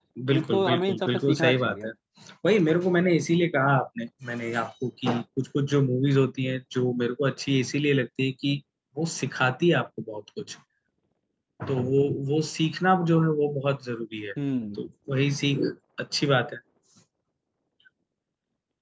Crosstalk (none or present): present